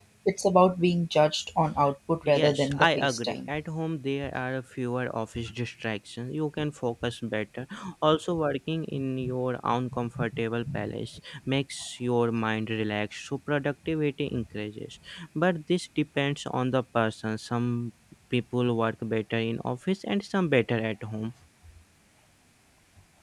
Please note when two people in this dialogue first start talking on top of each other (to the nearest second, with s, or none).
2 s